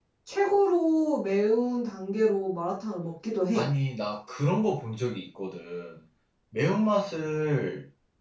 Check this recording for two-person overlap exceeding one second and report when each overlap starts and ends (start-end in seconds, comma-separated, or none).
none